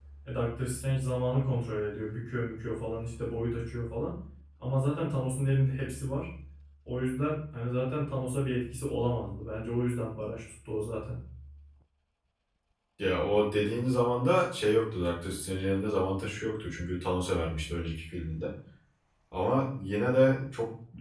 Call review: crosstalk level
none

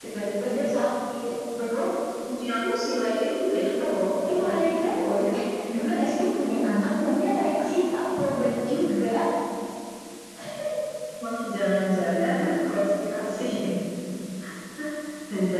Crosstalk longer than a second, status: none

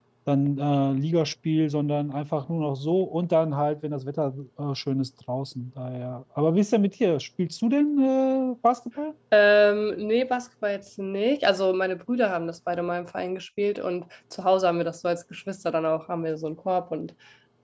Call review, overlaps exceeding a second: none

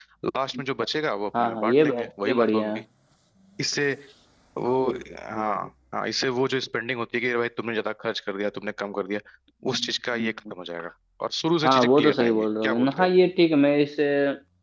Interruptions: present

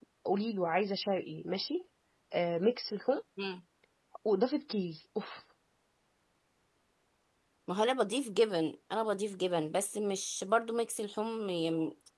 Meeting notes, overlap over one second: none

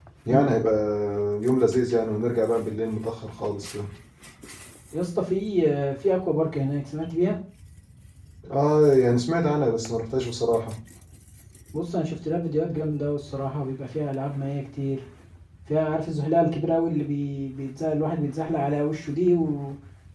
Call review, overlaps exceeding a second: none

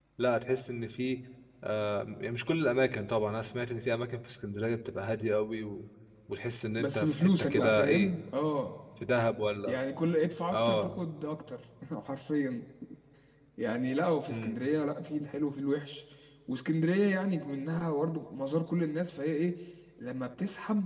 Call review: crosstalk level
present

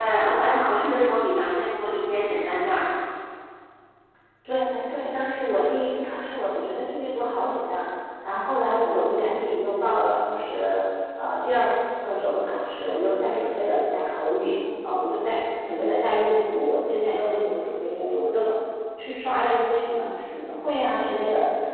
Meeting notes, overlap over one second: none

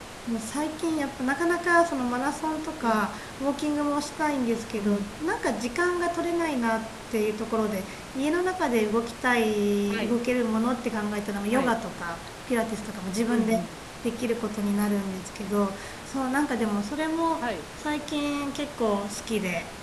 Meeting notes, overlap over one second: none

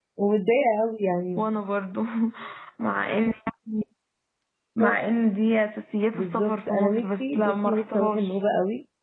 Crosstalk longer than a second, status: present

